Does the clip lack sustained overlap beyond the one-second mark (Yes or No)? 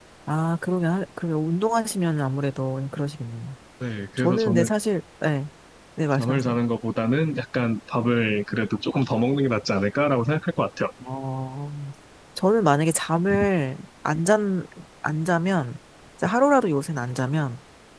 Yes